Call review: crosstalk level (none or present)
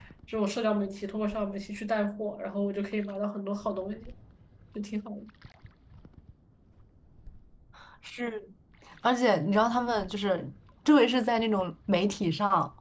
none